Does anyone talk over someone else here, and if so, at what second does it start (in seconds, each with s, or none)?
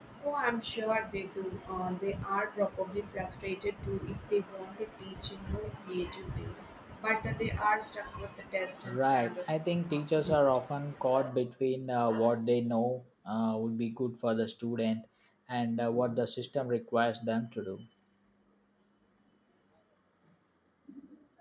8.8 s